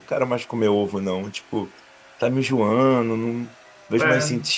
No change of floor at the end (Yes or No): Yes